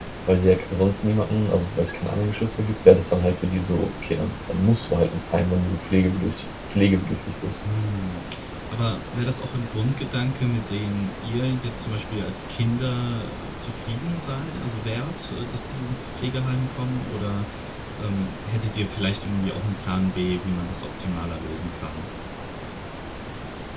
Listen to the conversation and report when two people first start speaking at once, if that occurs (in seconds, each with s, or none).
none